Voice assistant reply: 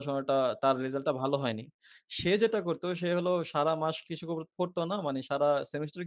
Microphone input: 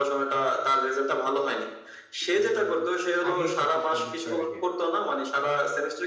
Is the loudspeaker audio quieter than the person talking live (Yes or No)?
No